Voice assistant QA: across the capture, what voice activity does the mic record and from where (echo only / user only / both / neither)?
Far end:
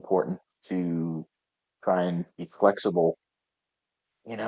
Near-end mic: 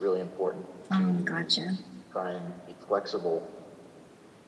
both